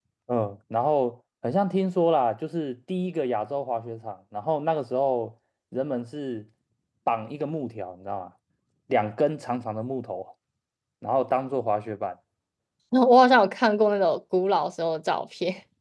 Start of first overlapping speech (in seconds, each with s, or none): none